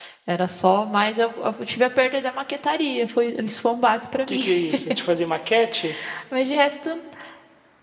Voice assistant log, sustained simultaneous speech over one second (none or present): none